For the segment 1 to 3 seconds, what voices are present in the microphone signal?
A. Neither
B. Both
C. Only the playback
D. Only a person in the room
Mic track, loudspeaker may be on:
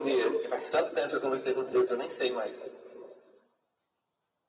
C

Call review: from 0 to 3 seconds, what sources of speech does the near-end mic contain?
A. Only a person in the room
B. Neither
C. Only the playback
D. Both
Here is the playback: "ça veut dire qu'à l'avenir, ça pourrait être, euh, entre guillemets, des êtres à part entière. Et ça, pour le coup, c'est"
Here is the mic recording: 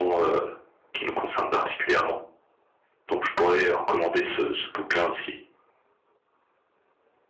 A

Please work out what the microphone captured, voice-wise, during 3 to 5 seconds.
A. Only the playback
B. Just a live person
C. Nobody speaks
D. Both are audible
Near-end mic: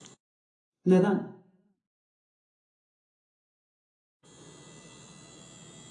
C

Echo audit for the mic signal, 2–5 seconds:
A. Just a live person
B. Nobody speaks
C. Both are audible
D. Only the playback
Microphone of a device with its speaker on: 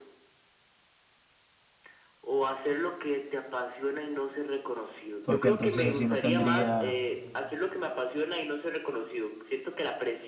D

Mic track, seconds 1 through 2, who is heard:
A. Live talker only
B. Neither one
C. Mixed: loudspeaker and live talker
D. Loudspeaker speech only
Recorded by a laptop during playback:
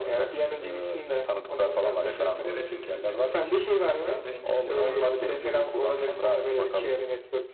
D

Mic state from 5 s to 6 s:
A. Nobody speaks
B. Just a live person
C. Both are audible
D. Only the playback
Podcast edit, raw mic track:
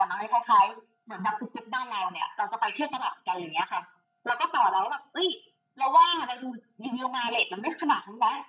D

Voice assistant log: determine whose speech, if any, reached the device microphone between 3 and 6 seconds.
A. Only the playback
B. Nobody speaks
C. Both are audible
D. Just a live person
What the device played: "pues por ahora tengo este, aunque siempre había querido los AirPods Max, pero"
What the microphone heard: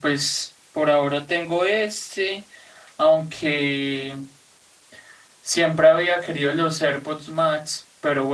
A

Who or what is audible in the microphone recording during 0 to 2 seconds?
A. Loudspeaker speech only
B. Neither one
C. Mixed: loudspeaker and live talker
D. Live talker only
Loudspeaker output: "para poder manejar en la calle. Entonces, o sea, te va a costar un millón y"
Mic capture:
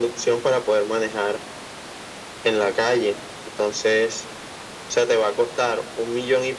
A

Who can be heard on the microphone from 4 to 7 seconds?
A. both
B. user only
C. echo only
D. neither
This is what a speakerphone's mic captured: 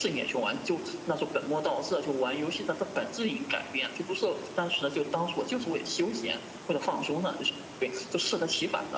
C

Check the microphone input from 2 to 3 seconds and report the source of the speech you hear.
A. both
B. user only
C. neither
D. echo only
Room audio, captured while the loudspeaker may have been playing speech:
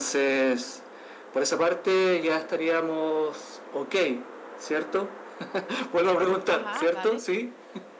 D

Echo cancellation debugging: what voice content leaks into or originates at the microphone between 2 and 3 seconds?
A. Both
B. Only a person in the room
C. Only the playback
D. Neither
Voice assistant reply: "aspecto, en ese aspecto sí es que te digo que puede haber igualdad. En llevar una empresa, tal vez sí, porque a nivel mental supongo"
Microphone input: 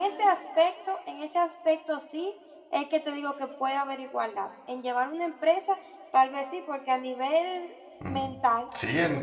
C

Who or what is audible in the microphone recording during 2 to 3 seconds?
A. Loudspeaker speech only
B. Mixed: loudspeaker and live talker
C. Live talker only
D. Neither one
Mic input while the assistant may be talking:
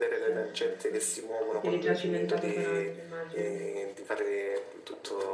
B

